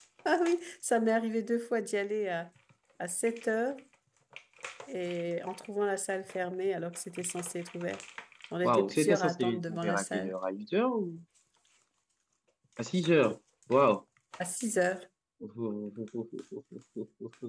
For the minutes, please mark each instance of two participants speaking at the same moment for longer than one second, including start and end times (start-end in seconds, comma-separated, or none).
8.6-10.3